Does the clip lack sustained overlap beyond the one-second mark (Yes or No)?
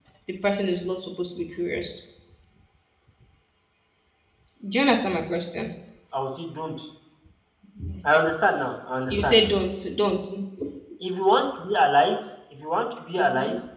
Yes